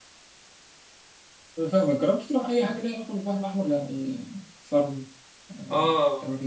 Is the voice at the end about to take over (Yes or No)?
Yes